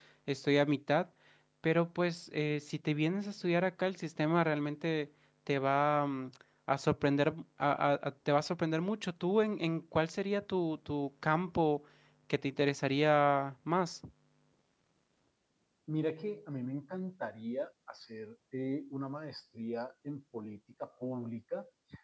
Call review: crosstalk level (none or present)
none